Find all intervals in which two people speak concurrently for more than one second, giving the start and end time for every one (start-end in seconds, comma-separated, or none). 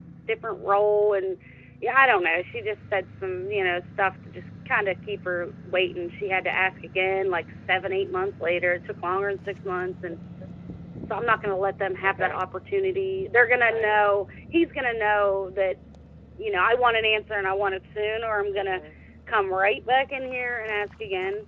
none